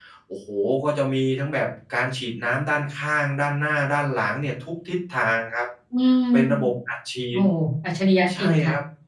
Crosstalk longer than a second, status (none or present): none